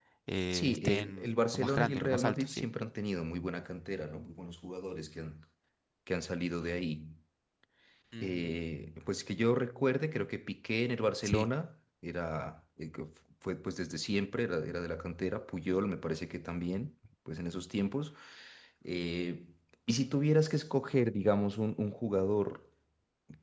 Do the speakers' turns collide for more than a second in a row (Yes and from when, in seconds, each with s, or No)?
Yes, from 0.5 s